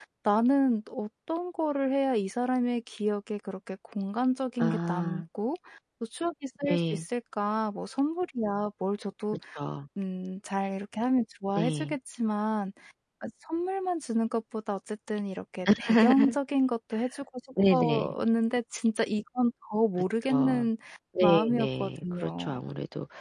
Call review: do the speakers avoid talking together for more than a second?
No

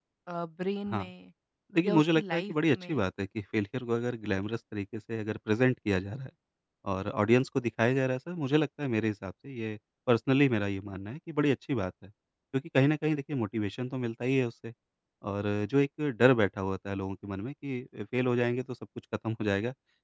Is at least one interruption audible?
Yes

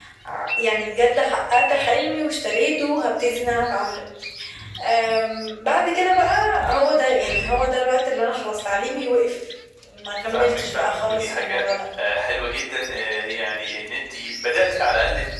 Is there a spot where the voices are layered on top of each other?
Yes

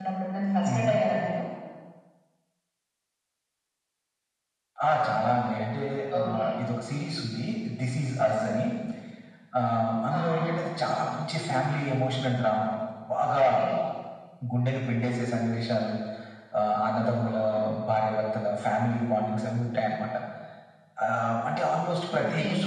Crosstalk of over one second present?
No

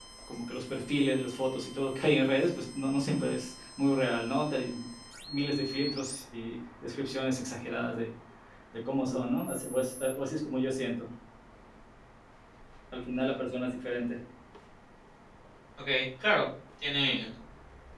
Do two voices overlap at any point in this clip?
No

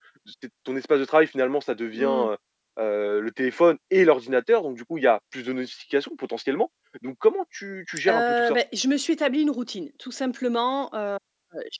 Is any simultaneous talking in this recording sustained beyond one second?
No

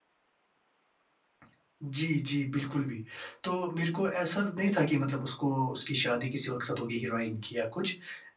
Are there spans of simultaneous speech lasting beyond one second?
No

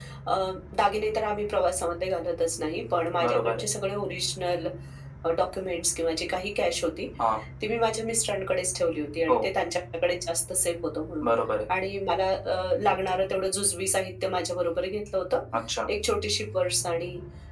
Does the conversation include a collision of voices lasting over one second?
No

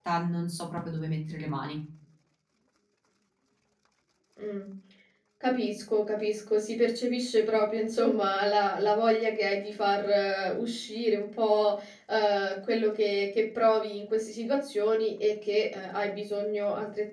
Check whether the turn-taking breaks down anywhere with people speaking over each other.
No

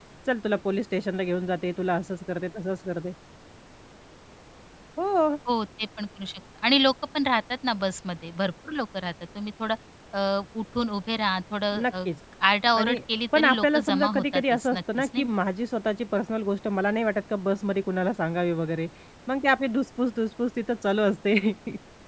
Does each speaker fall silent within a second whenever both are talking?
No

